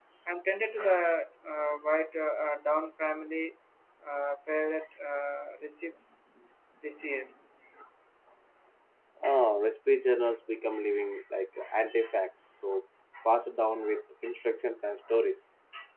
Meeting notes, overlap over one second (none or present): none